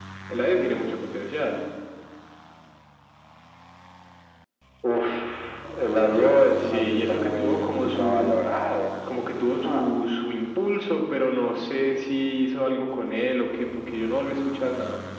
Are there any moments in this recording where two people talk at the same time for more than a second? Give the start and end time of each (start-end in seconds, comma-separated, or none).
6.6-8.3